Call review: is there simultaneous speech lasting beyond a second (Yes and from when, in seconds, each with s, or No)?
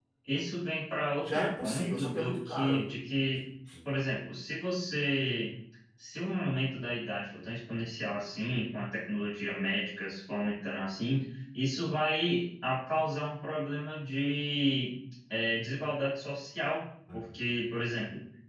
Yes, from 1.2 s